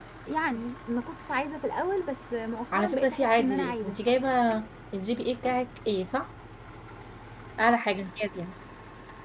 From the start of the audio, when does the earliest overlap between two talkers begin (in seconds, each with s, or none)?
2.7 s